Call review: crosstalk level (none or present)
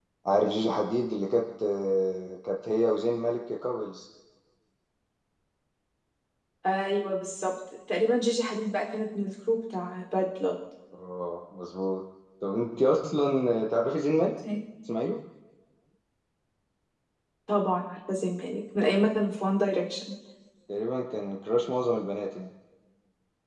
none